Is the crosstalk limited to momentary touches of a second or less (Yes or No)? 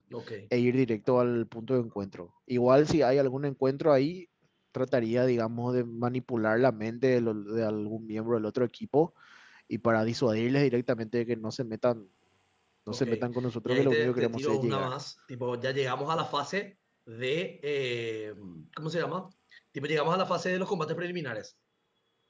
No